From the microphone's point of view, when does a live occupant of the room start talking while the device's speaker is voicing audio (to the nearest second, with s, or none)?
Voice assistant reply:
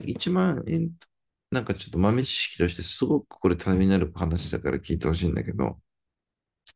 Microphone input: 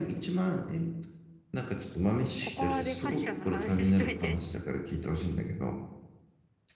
2 s